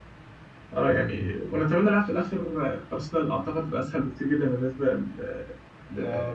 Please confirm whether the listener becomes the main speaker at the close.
Yes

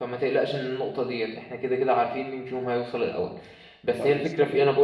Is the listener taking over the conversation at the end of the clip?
No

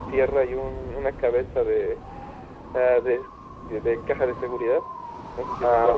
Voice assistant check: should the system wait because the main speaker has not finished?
No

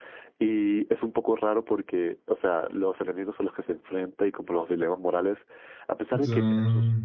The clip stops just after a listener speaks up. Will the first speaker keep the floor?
Yes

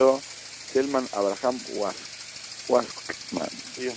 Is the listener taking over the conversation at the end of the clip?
Yes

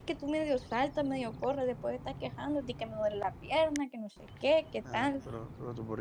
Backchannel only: No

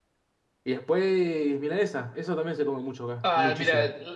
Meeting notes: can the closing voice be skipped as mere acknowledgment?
No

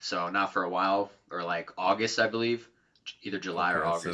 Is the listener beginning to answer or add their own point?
Yes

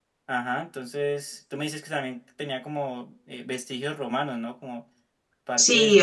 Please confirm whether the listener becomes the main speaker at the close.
Yes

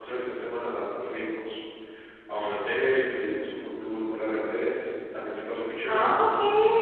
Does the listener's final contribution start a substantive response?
Yes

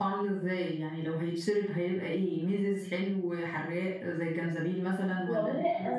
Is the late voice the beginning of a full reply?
Yes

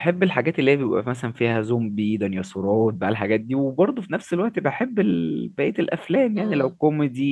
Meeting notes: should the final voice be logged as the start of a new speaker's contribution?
No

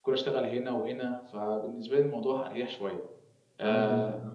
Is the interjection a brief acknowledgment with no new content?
No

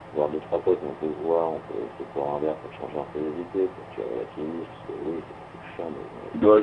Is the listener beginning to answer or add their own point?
Yes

